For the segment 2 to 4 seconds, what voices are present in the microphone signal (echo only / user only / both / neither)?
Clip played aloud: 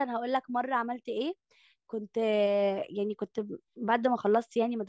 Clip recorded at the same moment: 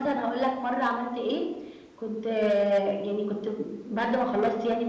echo only